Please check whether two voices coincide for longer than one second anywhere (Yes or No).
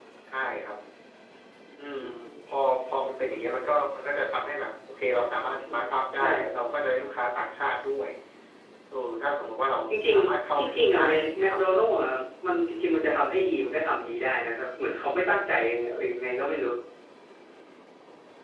Yes